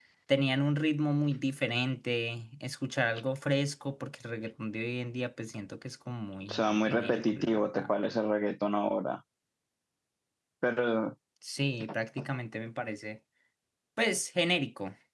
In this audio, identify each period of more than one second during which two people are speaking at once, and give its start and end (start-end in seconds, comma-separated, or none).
6.5-7.9